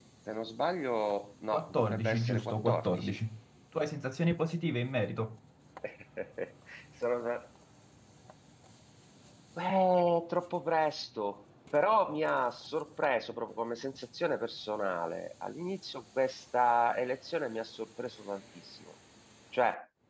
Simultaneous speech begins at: 1.5 s

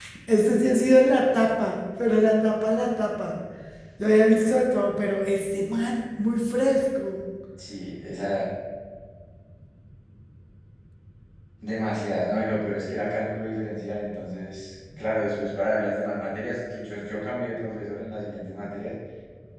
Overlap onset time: none

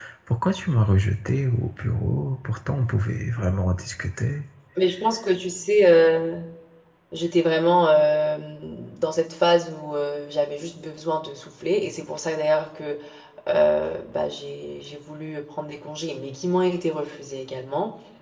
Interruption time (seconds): none

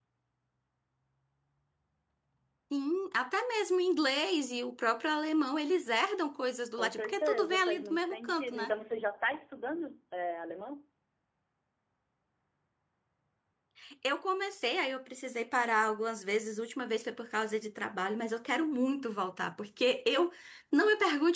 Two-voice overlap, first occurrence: 6.8 s

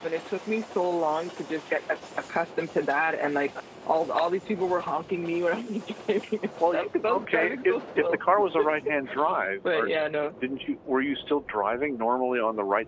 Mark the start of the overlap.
6.6 s

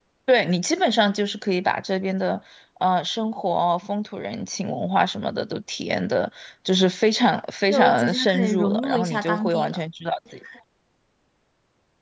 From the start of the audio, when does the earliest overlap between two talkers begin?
7.7 s

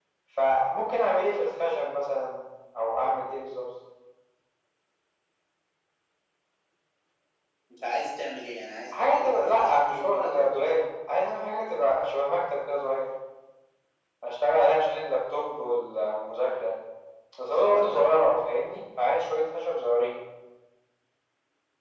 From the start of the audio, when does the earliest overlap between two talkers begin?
9.0 s

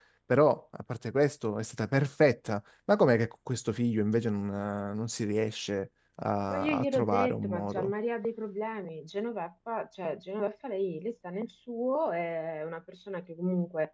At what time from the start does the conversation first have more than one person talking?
6.5 s

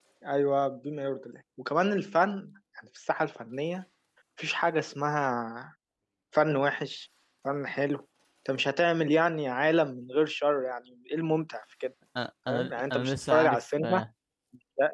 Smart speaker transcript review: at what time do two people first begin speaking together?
12.5 s

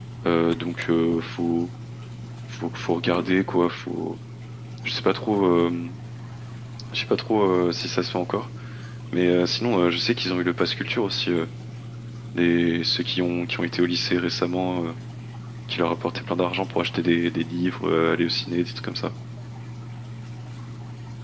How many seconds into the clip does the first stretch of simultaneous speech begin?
none

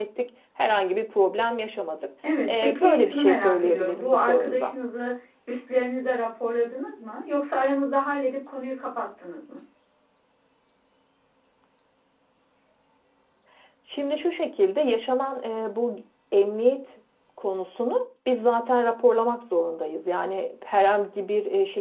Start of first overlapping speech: 2.2 s

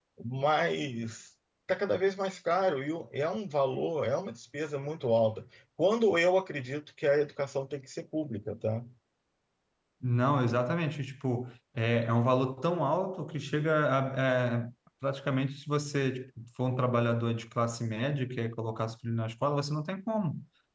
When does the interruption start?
none

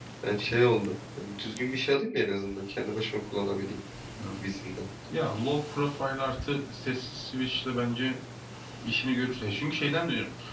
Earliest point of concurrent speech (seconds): none

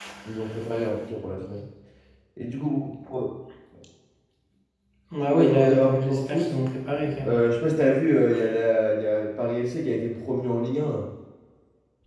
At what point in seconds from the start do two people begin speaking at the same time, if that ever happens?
5.2 s

